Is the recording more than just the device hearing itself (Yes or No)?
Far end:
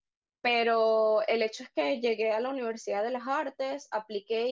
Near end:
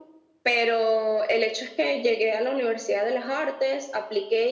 No